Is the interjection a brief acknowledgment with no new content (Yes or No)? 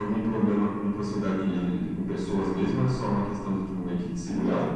No